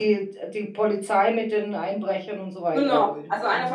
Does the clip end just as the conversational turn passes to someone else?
Yes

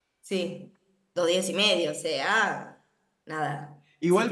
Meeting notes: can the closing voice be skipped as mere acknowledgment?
No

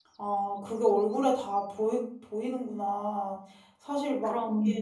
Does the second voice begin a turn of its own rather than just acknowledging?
No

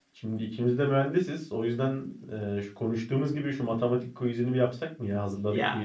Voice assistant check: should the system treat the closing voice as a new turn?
Yes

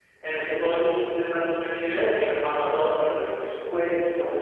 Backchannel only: No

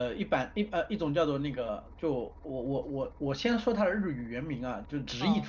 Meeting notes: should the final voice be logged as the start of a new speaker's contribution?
No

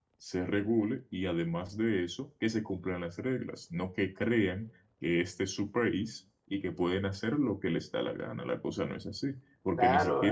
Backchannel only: No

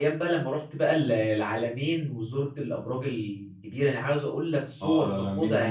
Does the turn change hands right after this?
Yes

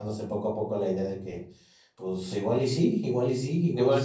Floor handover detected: Yes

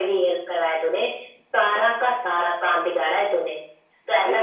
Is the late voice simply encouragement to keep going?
Yes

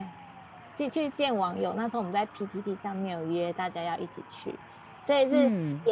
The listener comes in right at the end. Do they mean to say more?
No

